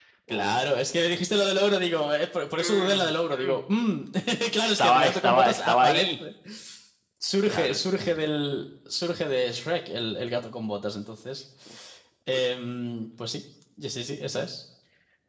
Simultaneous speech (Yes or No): Yes